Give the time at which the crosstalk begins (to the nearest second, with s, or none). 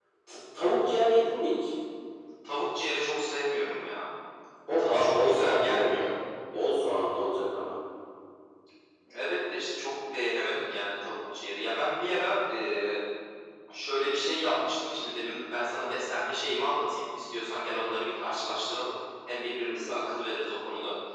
5 s